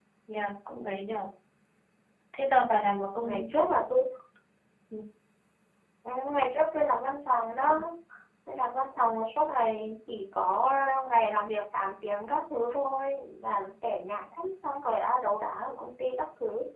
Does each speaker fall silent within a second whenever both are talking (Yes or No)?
Yes